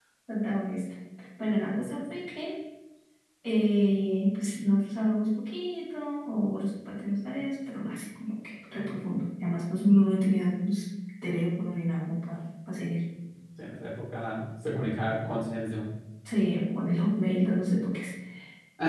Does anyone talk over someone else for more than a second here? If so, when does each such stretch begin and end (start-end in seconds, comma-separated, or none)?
none